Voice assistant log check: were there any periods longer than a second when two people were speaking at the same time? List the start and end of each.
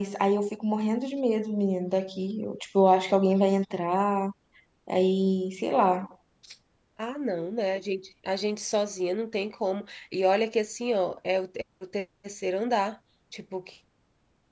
none

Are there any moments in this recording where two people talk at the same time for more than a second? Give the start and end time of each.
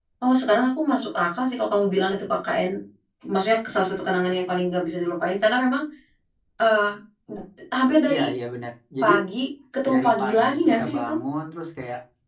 9.9-11.1

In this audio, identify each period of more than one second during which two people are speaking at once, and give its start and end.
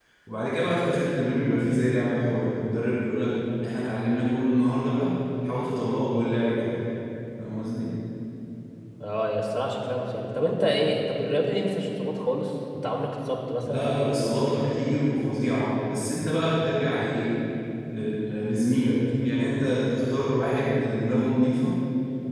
none

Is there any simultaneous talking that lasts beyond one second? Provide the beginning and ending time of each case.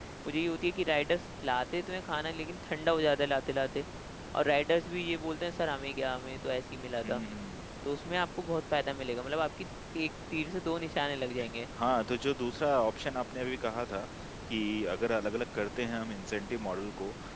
none

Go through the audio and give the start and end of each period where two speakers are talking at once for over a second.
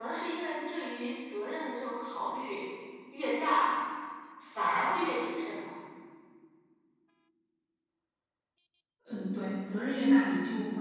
none

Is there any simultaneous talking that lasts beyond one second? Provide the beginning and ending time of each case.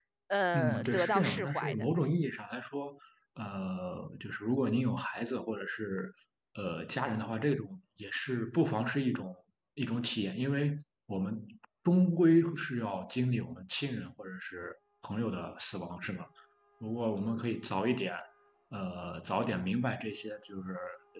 0.5-1.9

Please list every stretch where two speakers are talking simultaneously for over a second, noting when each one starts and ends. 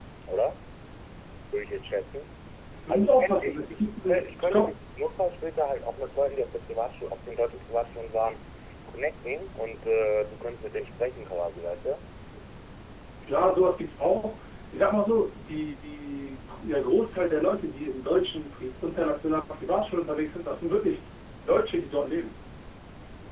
2.9-4.8

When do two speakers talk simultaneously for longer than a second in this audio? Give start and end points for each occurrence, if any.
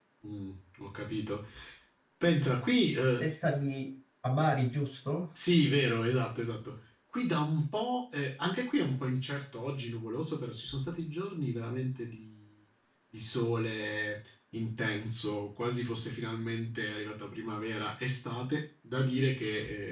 none

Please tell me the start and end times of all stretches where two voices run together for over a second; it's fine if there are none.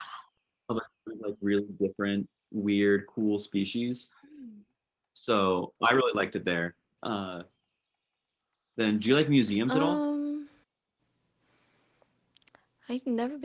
none

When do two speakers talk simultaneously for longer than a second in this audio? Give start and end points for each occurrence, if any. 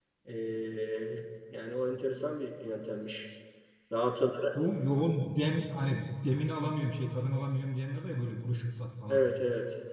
none

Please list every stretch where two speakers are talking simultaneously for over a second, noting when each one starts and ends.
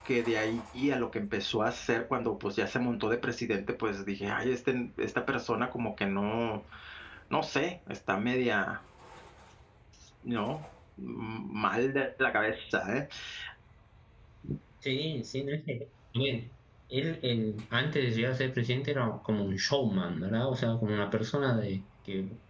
none

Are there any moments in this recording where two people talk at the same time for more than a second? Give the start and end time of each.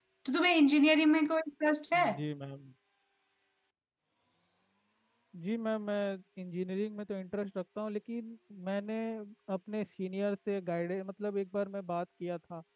none

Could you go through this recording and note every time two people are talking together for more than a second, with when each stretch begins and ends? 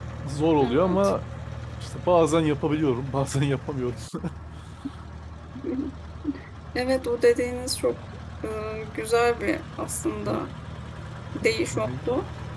none

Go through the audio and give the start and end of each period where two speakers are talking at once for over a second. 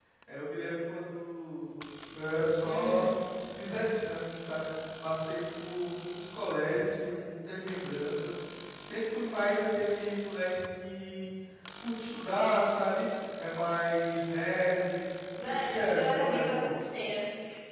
15.4-16.8

